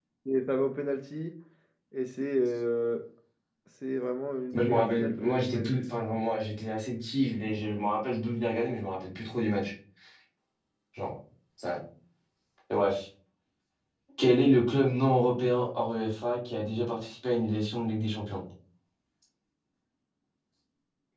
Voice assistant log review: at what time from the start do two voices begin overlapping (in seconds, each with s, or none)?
4.5 s